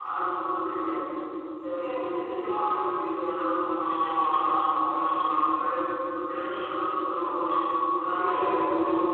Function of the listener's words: listening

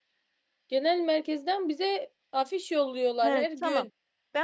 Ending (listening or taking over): taking over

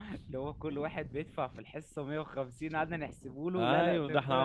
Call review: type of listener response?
taking over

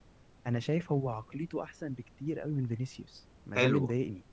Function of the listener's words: taking over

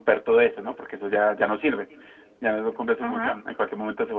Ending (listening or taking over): listening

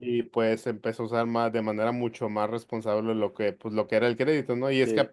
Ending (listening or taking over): listening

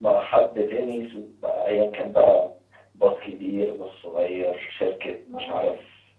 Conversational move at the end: listening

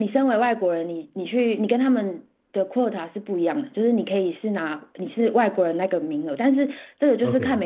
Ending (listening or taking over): listening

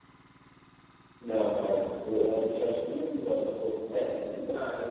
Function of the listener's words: taking over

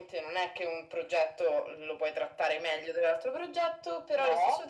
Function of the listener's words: listening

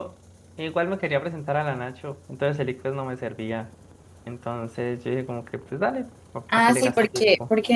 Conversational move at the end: taking over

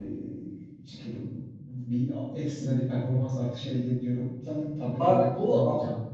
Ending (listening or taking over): taking over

